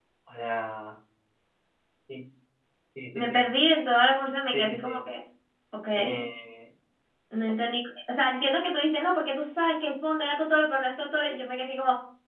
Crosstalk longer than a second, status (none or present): none